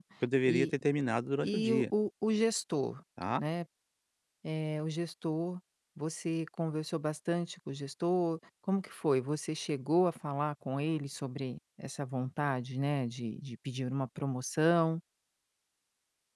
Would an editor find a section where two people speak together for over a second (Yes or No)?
No